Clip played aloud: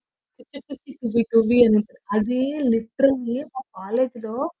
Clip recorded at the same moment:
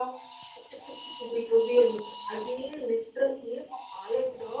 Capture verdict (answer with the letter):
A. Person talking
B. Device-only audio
B